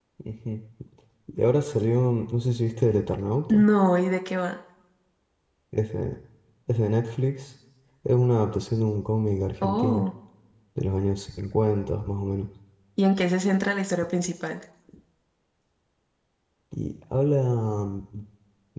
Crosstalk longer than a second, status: none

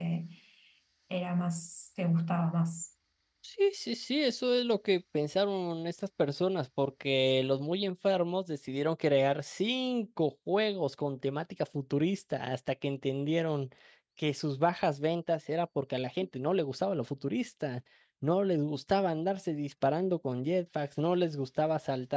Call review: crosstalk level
none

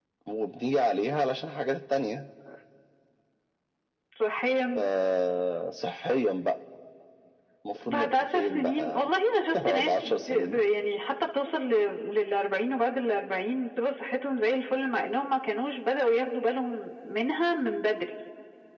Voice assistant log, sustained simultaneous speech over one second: present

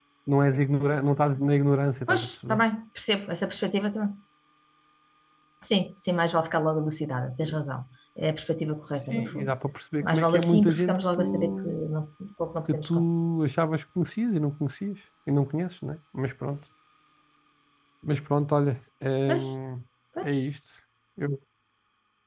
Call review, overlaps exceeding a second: present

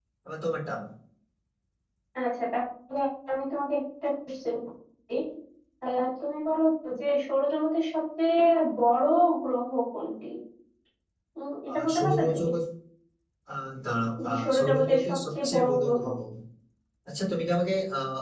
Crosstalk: present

